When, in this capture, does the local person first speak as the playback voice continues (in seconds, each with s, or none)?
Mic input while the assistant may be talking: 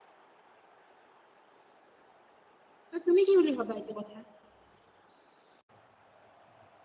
2.9 s